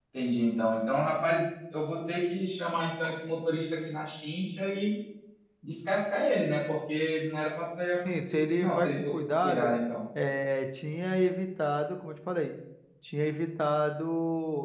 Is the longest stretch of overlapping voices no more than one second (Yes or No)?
No